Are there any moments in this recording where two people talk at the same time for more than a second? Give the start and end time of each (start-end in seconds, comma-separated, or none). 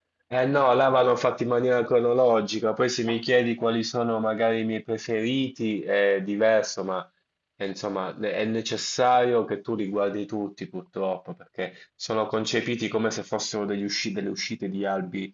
none